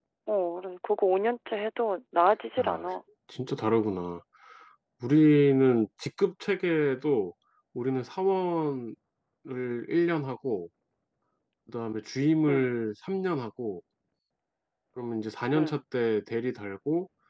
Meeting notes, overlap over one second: none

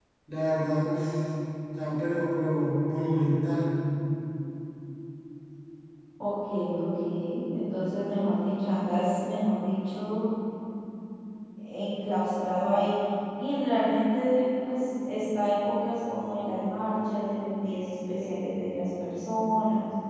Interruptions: none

